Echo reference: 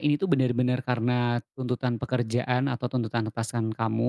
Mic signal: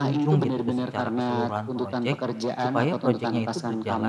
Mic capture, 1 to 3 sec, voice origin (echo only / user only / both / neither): both